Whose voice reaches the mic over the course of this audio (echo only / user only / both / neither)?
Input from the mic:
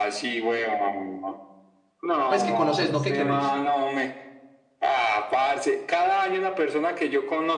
both